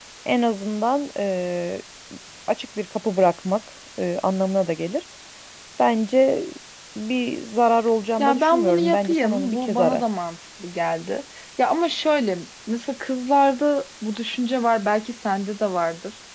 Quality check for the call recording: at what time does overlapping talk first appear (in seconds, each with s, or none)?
8.2 s